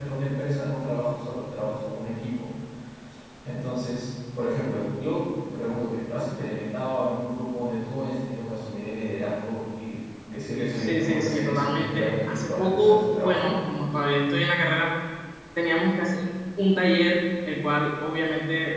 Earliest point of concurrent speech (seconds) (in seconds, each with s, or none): 10.5 s